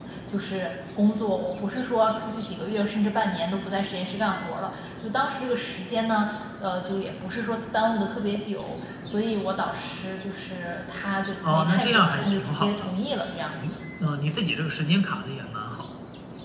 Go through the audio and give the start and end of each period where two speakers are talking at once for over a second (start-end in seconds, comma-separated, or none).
11.5-12.9